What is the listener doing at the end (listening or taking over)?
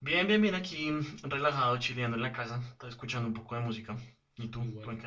taking over